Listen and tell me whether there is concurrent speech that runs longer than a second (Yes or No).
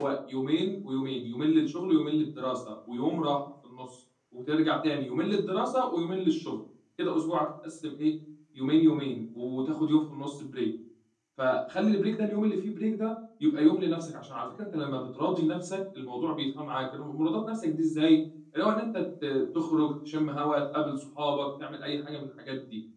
No